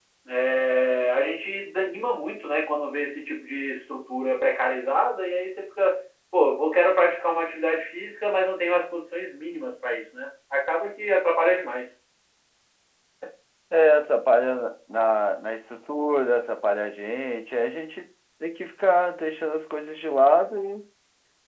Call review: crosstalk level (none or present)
none